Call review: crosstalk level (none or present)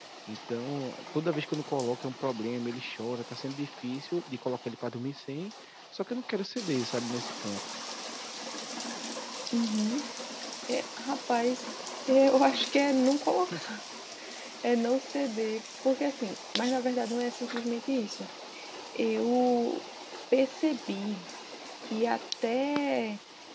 none